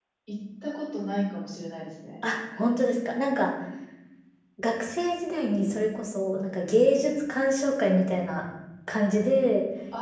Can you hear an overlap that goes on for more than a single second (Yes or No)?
No